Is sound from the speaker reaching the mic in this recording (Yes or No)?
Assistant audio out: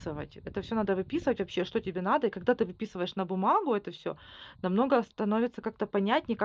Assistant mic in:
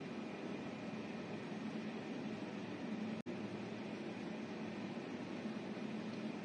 No